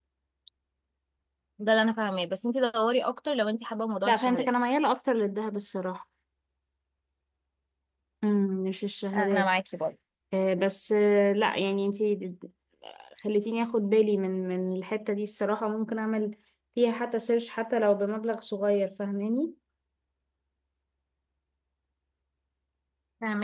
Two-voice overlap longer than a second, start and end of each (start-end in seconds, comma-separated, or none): none